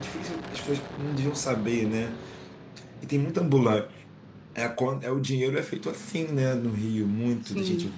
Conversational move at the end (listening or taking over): listening